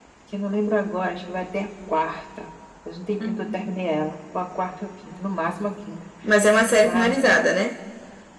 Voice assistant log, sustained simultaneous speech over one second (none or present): none